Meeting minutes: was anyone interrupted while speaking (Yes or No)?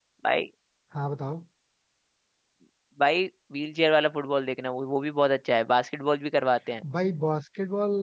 No